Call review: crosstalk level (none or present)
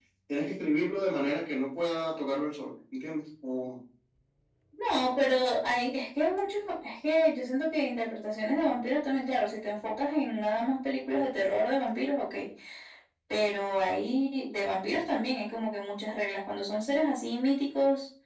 none